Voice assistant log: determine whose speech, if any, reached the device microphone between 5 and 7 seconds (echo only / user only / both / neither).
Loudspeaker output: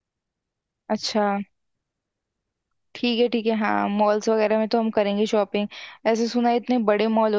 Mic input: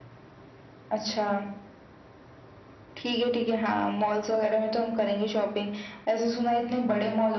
echo only